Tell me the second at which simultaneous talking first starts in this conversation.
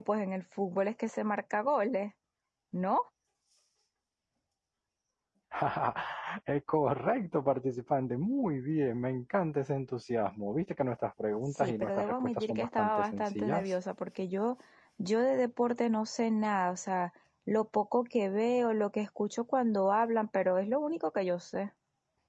12 s

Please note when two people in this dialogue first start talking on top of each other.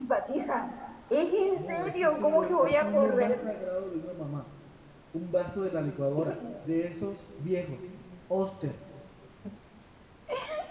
2 s

